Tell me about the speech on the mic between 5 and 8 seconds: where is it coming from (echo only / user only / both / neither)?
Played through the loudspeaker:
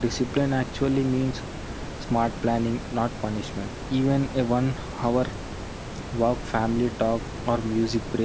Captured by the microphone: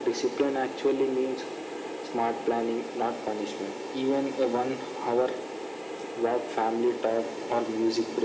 echo only